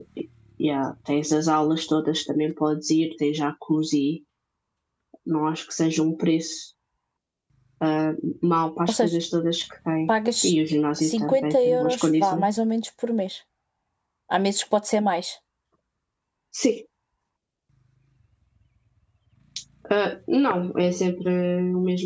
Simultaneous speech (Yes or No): Yes